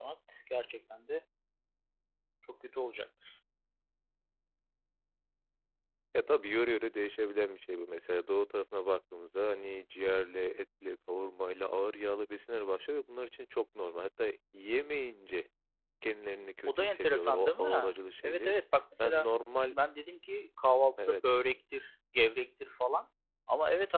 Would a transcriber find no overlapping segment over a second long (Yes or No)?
No